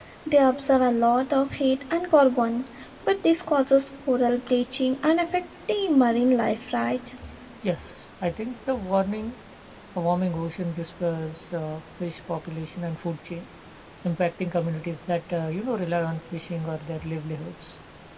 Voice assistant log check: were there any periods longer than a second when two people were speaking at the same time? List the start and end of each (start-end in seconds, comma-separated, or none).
none